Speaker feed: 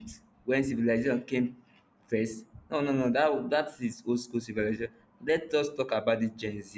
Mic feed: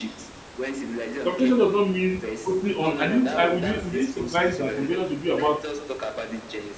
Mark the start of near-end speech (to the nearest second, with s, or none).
1 s